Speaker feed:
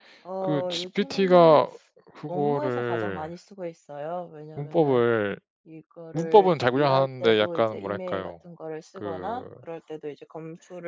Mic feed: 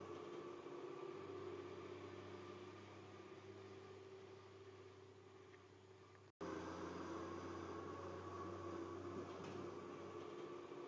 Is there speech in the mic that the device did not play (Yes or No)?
No